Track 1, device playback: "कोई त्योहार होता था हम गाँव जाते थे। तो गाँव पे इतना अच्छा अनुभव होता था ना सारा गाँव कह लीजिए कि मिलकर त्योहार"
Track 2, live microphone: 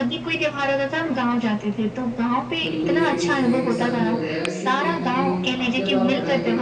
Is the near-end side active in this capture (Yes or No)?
Yes